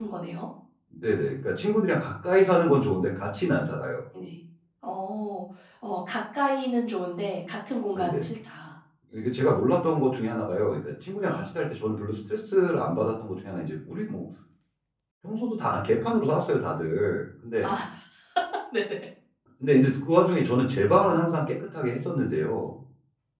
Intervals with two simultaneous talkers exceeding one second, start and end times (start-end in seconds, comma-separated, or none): none